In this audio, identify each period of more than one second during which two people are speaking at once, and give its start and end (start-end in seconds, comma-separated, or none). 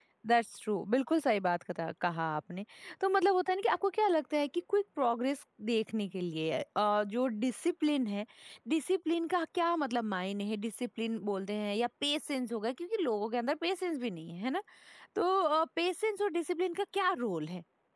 none